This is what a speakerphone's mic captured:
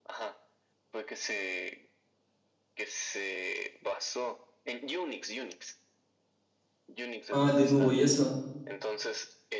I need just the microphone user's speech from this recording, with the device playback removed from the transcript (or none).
Ah, el de nuevo y eso.